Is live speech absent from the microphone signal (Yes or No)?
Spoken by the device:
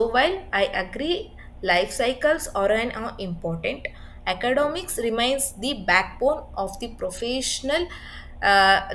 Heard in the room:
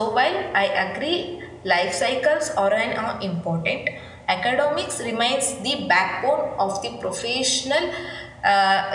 Yes